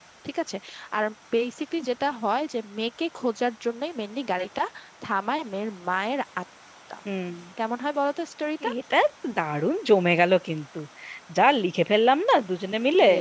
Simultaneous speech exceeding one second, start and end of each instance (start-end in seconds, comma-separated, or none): none